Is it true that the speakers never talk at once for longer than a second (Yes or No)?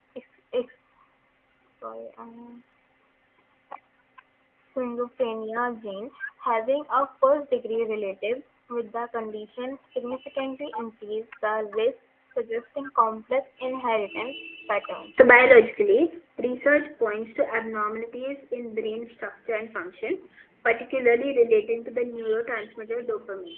Yes